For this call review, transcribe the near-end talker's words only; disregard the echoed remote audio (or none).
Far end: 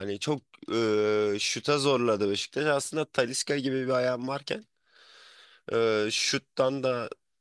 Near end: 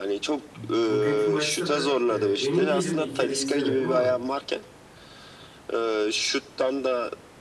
bugünkü maçta da e, emin değilim ilk yarıyı izlemedim ama